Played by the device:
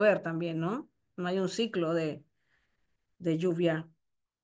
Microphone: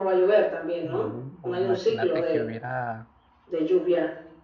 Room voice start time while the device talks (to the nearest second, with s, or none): 1 s